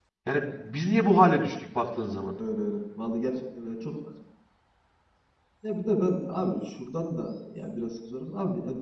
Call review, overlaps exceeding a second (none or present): none